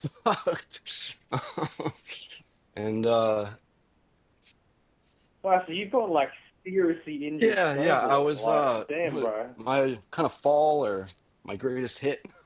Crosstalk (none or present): present